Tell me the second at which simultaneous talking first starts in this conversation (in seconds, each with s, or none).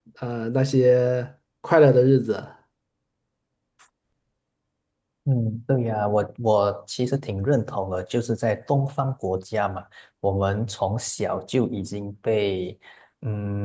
none